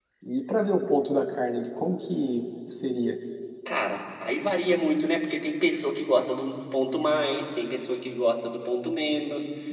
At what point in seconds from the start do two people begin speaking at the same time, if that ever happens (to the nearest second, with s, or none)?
none